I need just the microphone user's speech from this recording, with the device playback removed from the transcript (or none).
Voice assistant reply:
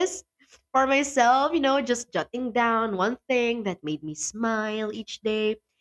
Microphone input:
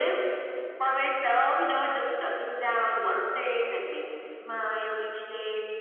none